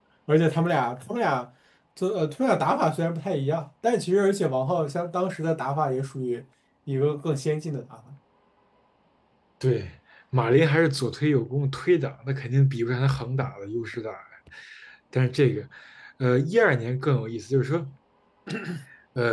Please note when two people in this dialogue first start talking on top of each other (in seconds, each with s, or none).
none